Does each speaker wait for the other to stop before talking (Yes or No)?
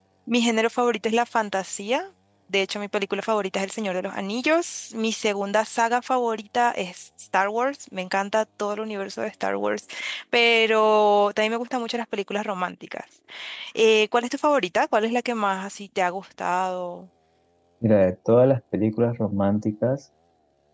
Yes